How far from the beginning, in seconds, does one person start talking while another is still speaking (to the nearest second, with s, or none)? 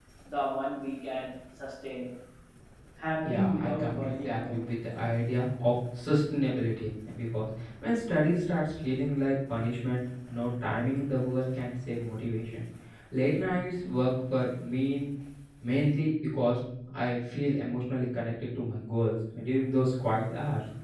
3 s